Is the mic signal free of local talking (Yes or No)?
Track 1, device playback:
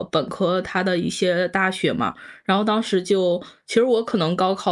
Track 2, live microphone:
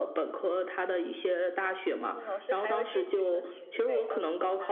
No